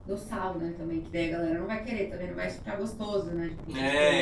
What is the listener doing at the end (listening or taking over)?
taking over